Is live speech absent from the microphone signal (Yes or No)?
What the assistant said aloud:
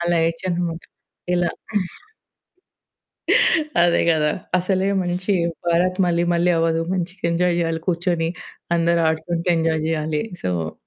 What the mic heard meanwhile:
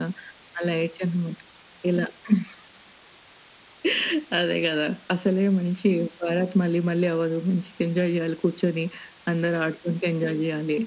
Yes